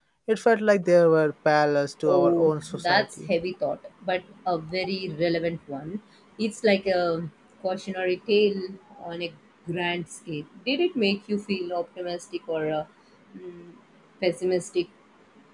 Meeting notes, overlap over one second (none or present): present